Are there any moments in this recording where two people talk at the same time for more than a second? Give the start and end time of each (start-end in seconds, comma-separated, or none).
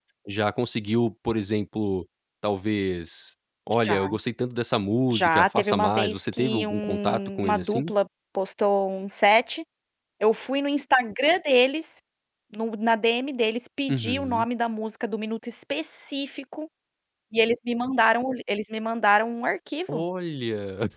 5.1-7.9